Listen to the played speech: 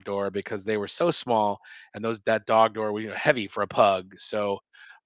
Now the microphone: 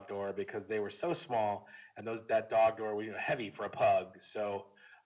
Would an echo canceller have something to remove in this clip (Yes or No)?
Yes